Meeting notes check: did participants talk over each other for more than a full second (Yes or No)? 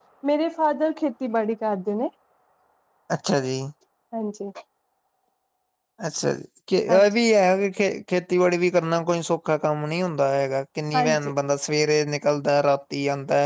No